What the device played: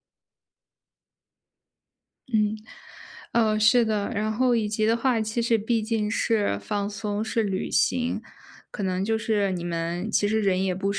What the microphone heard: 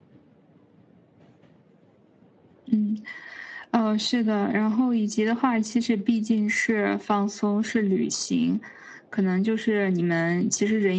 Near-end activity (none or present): none